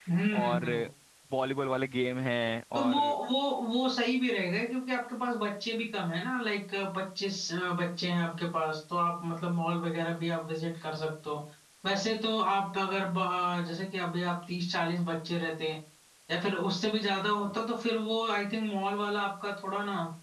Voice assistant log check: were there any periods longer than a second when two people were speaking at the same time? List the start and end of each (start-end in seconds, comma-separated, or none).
none